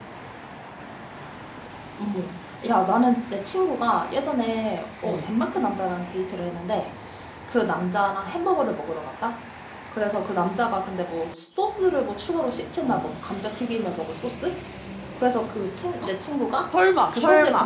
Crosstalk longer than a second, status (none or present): none